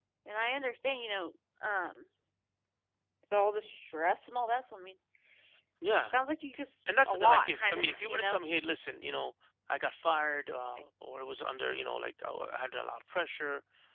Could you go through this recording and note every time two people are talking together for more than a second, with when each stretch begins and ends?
7.1-8.4

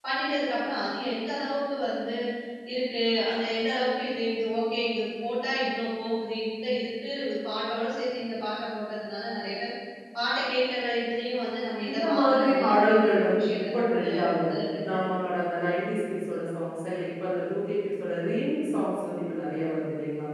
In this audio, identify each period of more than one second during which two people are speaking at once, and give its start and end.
11.9-14.5

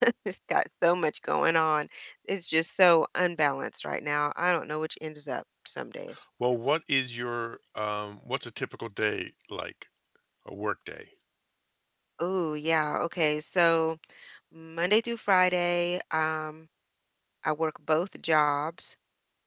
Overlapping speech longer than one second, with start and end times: none

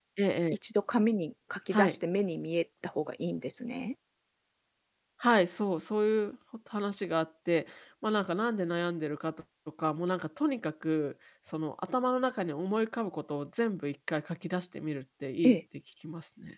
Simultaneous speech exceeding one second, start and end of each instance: none

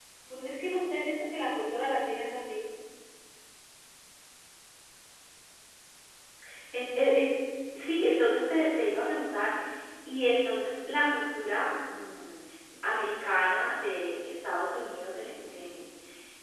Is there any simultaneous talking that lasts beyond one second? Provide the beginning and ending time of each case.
none

